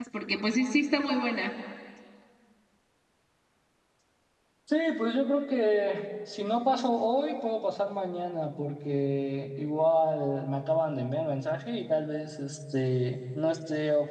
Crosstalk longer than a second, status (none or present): none